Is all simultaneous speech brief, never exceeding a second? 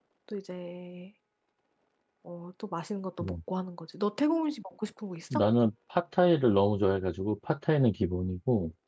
Yes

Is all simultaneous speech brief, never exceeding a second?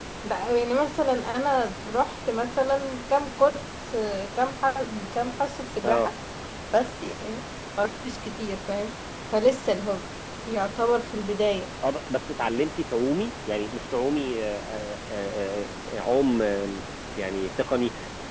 Yes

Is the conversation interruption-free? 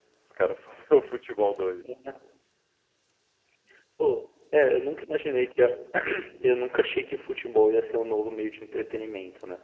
Yes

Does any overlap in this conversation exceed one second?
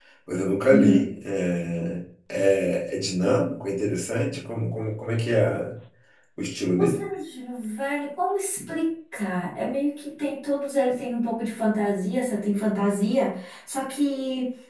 No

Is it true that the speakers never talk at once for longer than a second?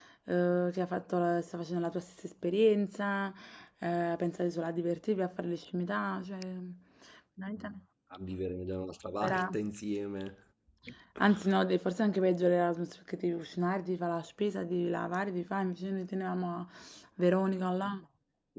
Yes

